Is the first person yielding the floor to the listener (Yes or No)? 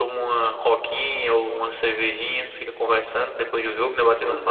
Yes